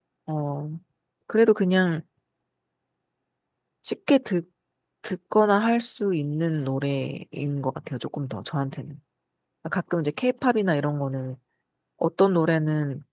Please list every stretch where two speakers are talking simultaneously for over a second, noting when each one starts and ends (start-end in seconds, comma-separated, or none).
none